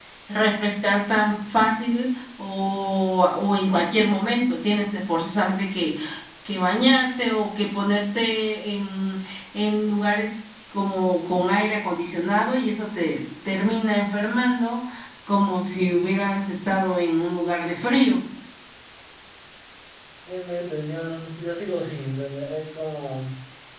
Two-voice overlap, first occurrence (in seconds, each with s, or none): none